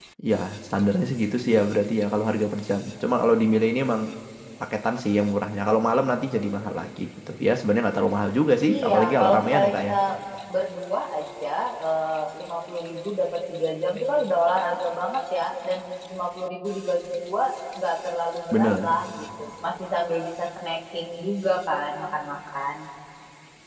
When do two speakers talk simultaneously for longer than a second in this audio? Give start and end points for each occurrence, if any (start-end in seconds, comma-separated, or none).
8.7-9.9